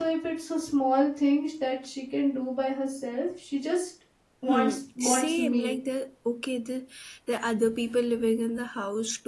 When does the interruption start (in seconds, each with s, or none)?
4.5 s